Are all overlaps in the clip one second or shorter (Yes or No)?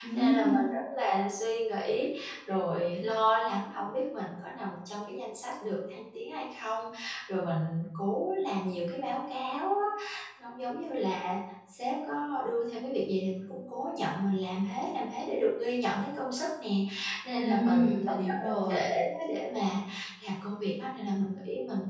No